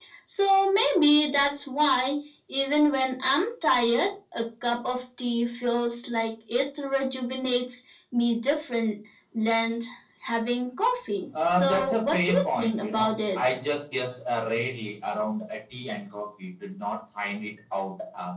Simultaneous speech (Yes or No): Yes